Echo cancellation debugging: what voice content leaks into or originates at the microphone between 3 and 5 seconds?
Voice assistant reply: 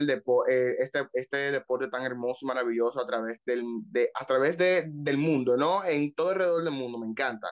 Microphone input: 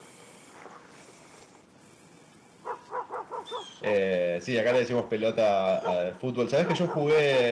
user only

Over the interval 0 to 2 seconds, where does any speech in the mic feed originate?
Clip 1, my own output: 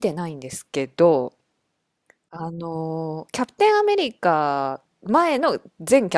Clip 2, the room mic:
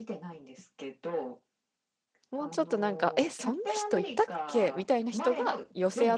echo only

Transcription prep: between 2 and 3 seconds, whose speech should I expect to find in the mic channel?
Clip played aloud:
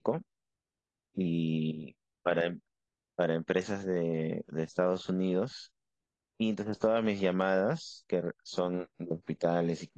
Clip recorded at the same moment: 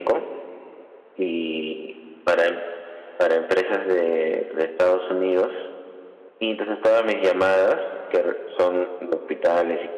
echo only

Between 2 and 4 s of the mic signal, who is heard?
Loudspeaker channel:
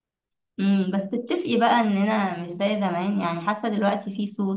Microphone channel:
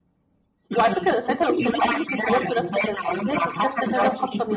both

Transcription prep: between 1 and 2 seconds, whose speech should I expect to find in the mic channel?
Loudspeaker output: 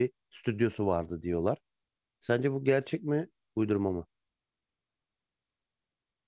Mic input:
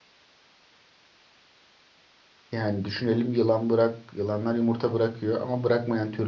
neither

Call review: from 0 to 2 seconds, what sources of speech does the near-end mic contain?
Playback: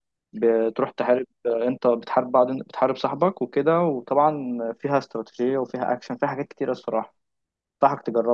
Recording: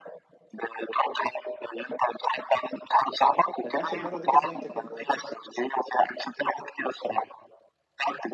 echo only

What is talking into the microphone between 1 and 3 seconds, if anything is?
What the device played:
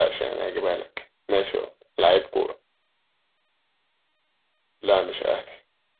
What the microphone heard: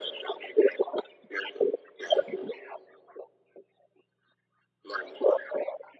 echo only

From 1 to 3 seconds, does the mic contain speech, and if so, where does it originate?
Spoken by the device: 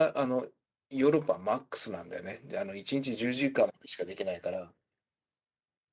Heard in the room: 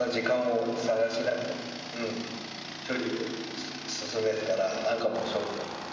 user only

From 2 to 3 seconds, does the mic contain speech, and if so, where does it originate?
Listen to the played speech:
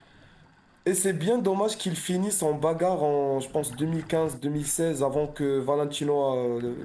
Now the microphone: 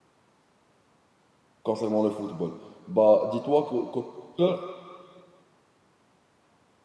user only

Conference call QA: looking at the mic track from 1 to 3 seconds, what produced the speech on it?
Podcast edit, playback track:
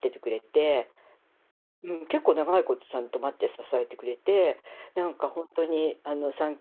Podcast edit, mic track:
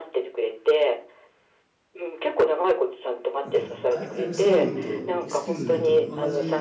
echo only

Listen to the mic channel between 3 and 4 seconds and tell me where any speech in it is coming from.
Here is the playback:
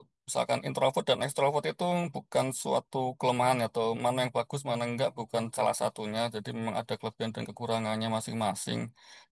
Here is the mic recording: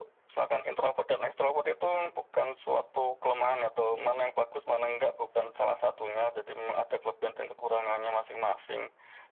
echo only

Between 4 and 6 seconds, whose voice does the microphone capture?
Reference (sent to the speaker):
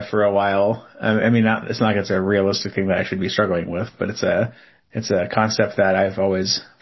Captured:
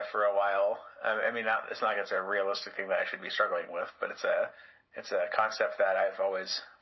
echo only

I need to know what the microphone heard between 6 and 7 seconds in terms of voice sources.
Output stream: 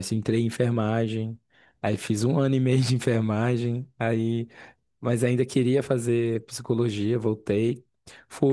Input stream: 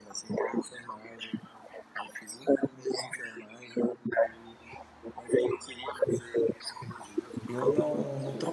echo only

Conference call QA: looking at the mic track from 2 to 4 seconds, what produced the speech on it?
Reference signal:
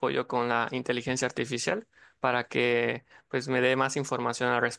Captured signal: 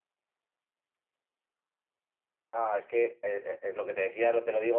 user only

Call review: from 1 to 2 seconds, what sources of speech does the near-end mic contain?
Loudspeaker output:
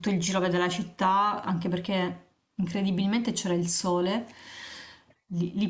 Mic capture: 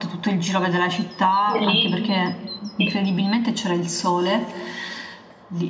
both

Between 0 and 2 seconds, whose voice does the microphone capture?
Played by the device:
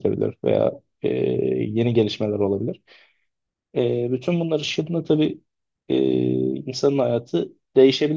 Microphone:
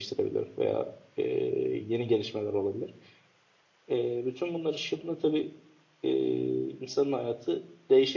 echo only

